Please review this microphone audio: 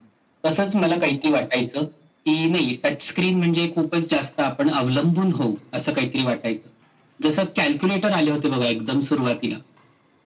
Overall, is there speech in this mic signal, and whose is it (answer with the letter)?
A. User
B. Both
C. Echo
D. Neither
C